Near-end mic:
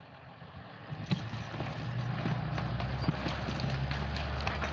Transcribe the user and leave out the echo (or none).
none